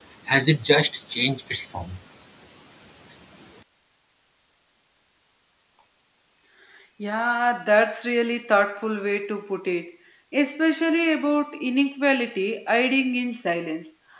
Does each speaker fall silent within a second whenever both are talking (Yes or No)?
Yes